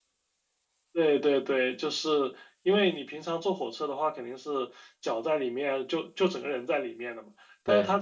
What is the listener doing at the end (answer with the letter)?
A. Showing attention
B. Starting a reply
A